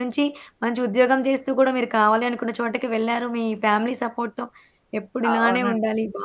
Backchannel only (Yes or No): Yes